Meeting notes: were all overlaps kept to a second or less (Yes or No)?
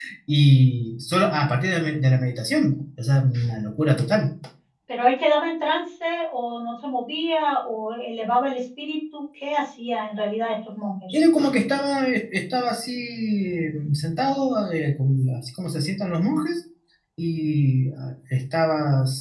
Yes